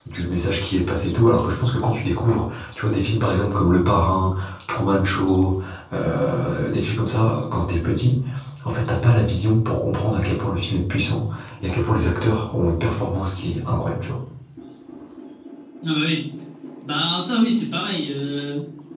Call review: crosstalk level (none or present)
none